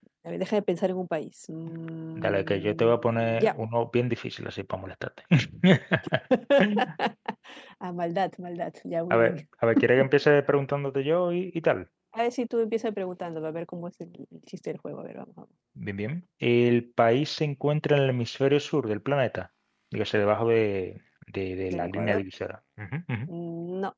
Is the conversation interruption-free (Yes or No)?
No